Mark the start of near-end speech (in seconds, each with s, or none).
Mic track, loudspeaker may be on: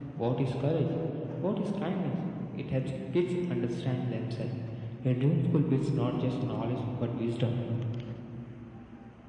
none